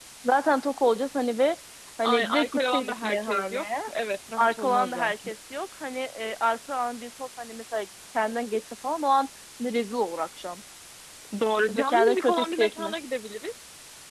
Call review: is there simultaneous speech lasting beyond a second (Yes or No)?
Yes